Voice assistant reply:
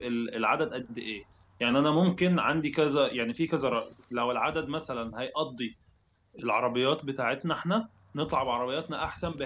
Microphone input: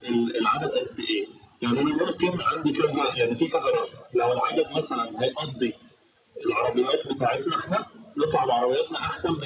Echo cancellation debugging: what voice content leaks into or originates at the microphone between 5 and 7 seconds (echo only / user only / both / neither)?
echo only